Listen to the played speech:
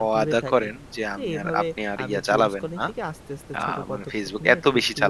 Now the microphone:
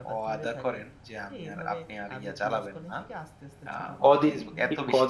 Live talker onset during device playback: 4.0 s

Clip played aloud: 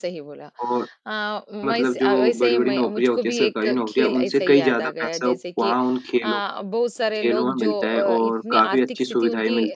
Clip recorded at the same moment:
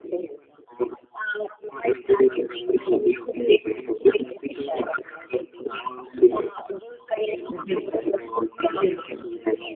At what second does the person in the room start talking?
7.5 s

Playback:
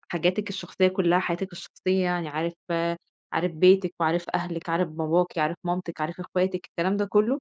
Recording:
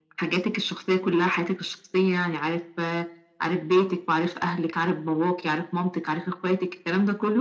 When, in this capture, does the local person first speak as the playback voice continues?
none

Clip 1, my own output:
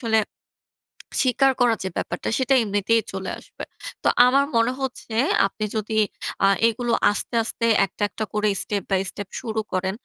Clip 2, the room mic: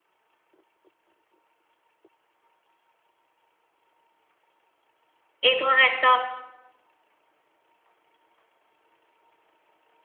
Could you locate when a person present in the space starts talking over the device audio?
5.5 s

